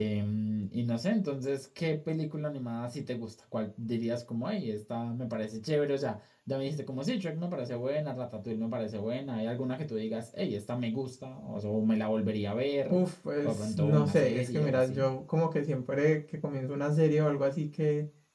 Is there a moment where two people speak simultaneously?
Yes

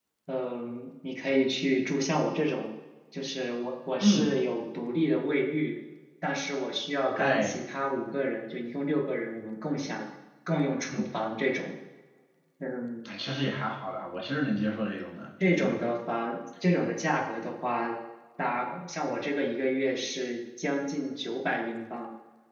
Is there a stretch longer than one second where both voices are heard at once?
No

